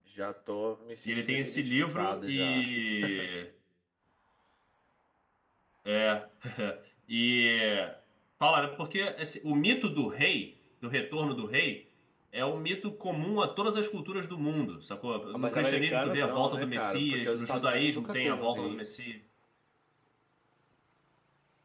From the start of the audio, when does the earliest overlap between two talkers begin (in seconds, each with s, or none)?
1.0 s